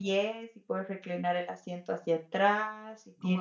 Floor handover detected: No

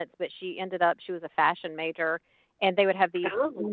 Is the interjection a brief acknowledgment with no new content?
Yes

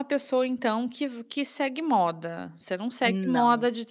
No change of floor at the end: Yes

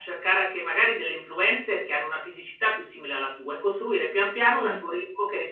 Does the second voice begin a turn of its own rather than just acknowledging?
No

